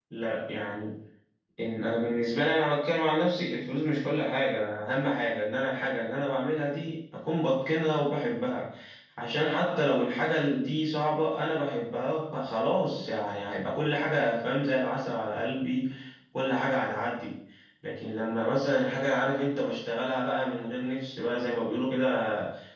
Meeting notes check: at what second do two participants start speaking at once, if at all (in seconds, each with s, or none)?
none